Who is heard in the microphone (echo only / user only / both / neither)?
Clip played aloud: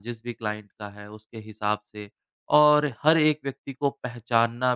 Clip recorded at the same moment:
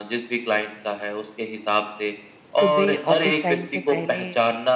both